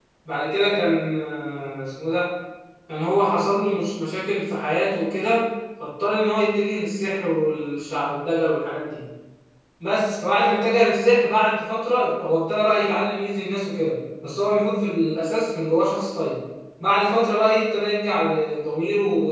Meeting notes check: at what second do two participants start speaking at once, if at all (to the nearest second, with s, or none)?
none